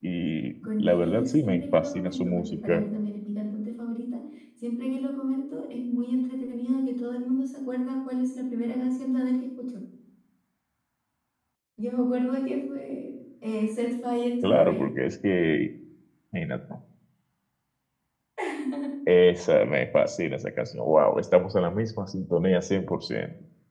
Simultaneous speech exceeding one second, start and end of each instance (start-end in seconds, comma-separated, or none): 0.8-2.8